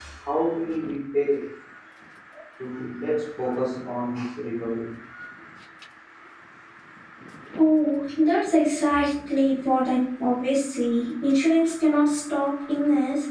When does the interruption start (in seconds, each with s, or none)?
none